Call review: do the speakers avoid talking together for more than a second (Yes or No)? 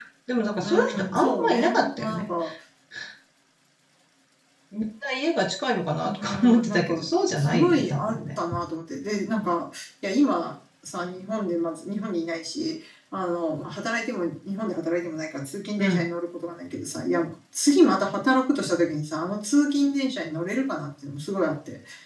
No